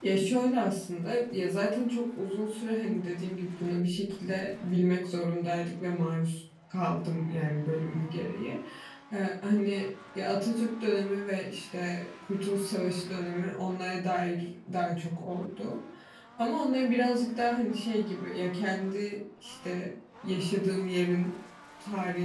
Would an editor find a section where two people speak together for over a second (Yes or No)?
No